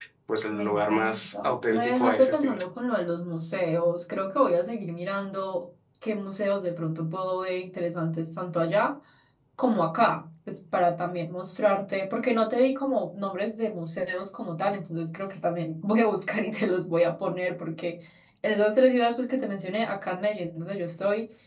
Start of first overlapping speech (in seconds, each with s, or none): 0.5 s